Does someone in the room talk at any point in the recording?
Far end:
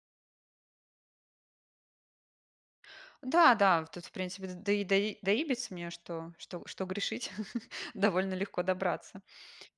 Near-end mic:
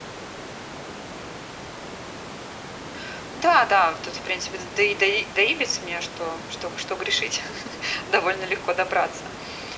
No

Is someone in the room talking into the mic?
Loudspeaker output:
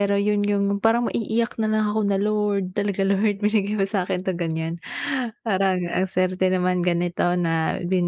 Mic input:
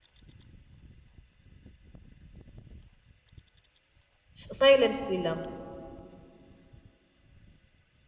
Yes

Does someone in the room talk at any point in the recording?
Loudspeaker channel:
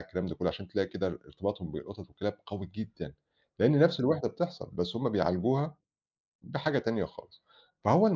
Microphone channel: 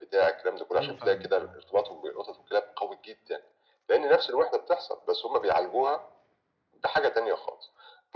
Yes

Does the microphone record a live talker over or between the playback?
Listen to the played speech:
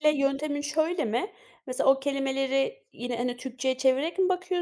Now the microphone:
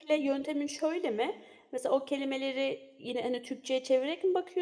No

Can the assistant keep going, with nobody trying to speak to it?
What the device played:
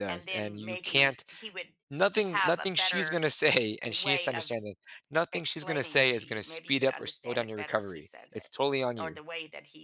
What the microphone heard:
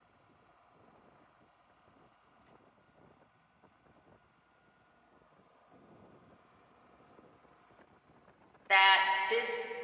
No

